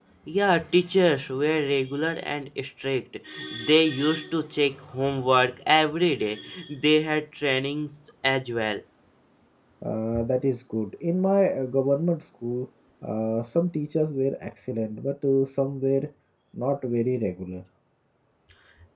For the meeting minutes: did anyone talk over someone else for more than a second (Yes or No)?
No